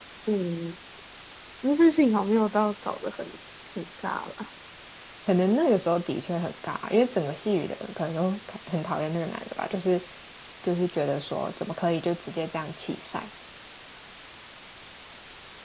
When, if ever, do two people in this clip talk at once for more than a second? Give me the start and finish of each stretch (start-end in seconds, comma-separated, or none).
none